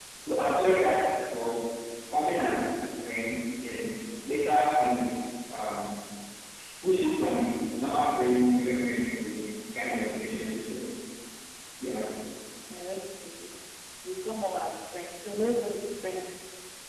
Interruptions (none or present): none